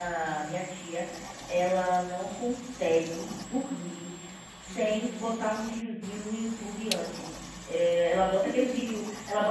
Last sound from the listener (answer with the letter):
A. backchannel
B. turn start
A